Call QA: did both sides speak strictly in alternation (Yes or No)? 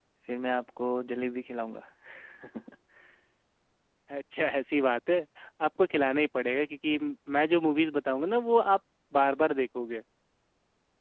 Yes